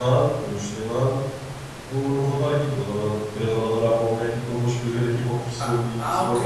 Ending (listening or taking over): taking over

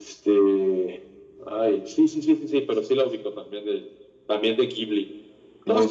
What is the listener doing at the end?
listening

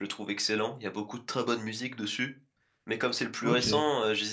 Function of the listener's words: listening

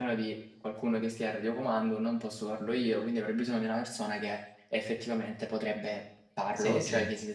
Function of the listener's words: listening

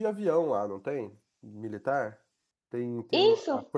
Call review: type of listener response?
taking over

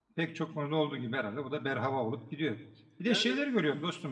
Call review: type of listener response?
listening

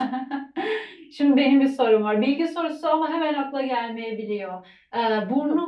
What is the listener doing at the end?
listening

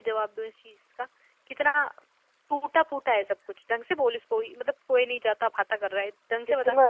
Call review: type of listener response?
taking over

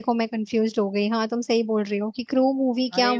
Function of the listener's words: taking over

